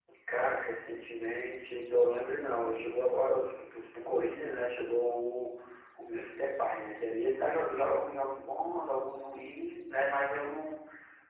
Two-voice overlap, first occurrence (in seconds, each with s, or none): none